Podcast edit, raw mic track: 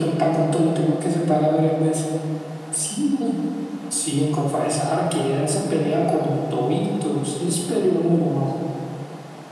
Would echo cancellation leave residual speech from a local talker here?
No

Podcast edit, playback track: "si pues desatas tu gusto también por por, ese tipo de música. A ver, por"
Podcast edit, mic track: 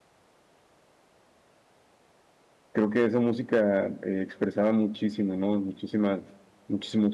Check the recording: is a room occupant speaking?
Yes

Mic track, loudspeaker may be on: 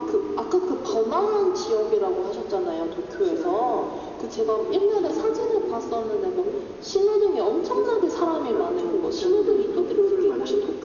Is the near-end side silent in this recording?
Yes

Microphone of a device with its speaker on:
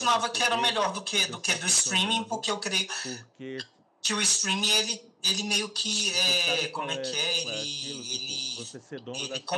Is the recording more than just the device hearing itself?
Yes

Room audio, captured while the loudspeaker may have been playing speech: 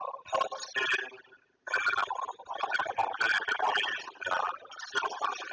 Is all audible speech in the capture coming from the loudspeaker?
Yes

